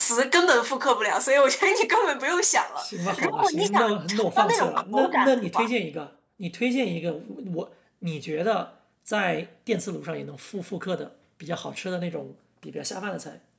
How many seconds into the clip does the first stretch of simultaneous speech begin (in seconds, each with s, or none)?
2.8 s